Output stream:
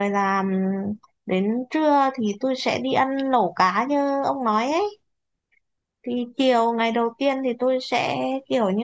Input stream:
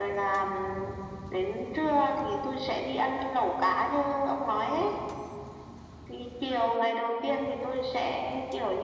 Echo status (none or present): present